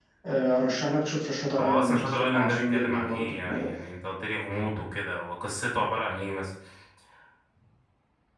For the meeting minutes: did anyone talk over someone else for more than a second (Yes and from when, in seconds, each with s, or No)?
Yes, from 1.6 s